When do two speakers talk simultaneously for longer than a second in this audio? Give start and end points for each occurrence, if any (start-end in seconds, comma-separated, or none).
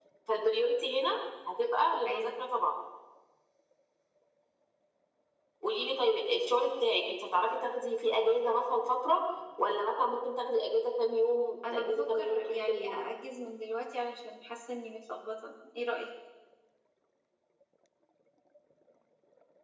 11.7-13.0